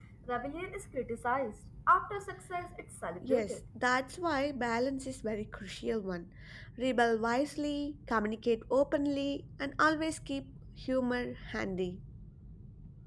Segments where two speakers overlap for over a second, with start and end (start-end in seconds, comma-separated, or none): none